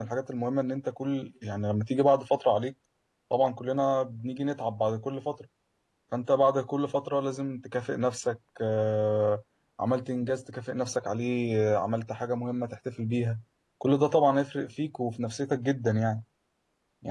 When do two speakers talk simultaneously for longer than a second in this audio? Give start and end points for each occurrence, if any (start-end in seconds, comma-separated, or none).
none